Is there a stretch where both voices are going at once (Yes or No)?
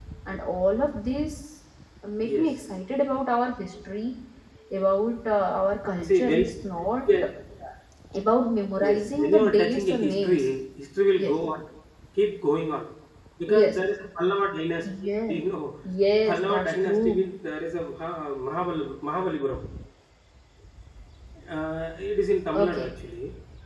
Yes